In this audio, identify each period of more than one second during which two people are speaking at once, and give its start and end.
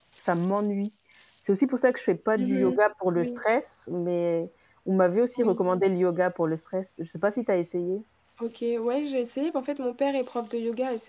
none

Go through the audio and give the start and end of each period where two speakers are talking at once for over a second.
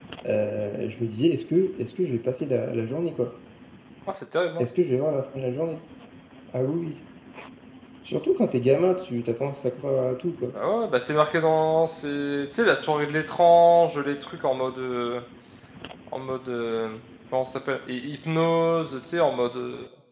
none

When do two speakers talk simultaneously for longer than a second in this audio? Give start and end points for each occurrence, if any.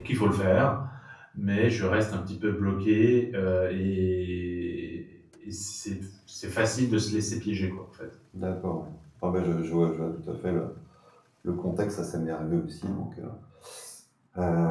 none

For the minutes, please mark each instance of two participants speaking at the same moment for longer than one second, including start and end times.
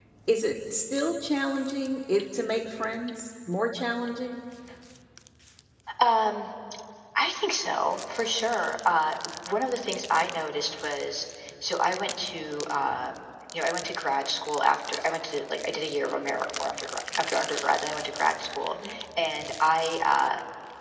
none

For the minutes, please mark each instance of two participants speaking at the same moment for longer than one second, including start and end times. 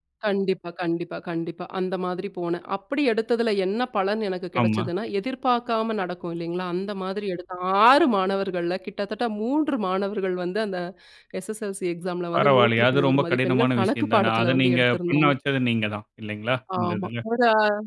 12.3-15.3

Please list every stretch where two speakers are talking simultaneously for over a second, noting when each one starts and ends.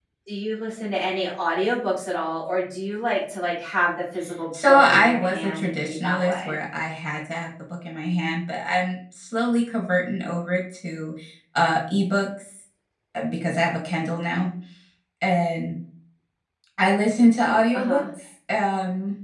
4.7-6.6

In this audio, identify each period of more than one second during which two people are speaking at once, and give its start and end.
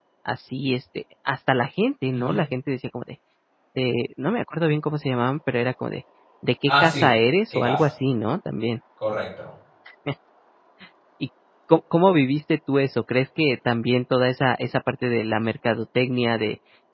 none

